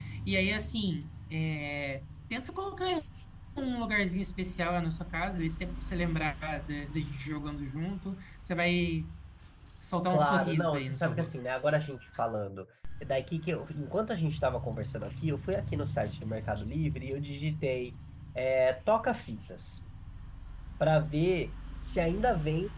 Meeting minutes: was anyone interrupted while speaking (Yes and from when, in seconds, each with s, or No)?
Yes, from 10.1 s